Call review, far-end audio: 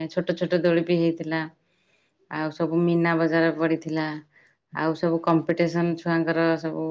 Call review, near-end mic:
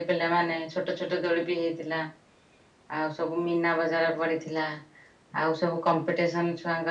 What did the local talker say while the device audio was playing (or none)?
none